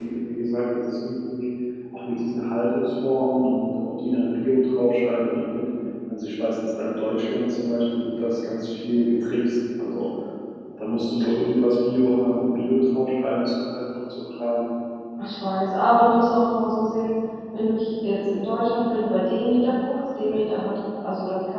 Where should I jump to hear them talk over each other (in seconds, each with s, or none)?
none